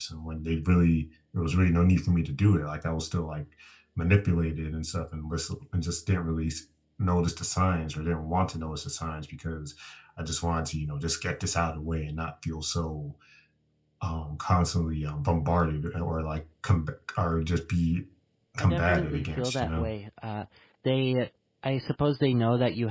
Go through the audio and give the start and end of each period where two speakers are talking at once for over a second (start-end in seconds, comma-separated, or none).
18.6-19.9